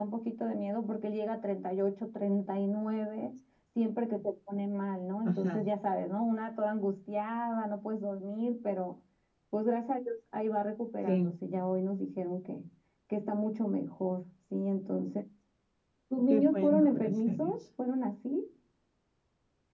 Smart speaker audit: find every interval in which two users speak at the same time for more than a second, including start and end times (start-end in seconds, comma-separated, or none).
16.3-17.6